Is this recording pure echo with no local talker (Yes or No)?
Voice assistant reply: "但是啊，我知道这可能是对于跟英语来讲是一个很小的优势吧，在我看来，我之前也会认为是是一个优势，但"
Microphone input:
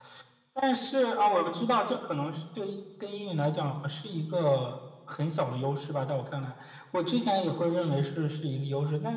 Yes